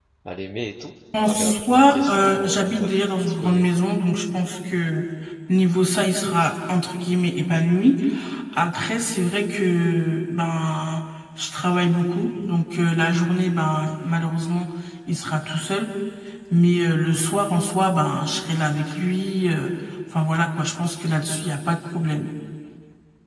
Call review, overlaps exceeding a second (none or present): present